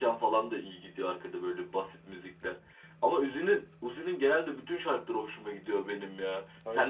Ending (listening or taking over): listening